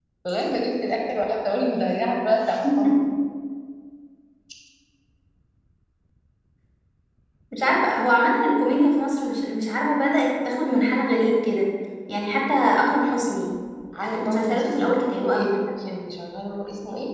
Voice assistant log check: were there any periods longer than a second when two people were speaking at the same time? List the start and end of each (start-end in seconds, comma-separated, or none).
14.1-15.5